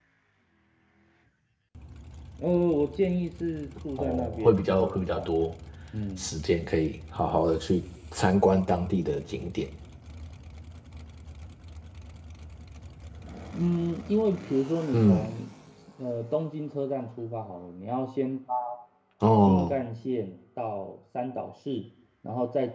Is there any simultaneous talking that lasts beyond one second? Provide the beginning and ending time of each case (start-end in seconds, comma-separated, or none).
4.0-5.3